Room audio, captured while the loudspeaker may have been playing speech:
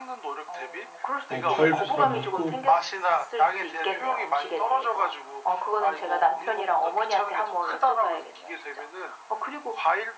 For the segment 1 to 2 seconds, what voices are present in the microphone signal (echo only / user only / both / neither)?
both